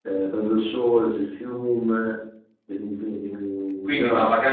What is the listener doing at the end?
taking over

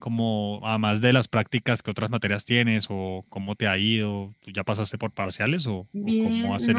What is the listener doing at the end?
taking over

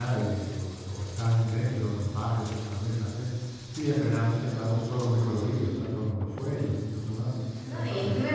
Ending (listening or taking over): taking over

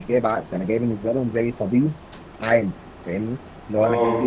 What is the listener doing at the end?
listening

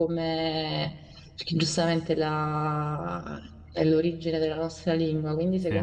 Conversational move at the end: listening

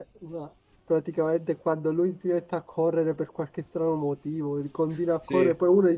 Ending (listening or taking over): listening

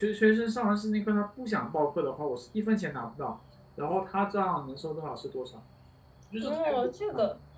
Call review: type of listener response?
taking over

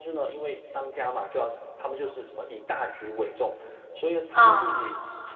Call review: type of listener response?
listening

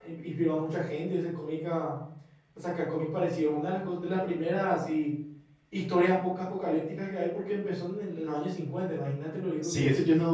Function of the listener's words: taking over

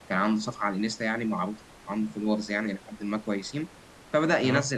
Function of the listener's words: listening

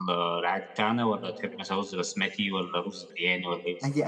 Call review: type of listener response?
taking over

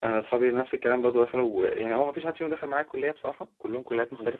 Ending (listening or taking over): taking over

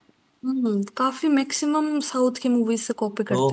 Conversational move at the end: taking over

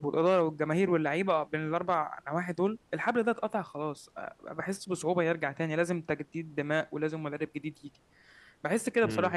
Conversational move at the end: listening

